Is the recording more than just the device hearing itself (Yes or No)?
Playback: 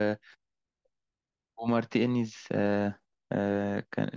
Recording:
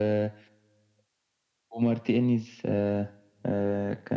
No